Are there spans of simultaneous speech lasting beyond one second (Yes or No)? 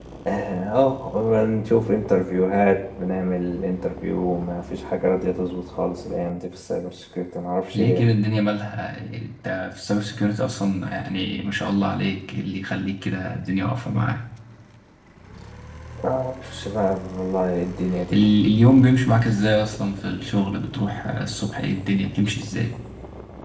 No